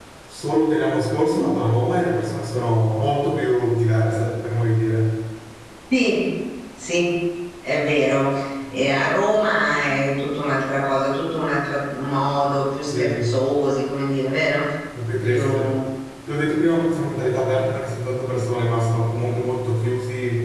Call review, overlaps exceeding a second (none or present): none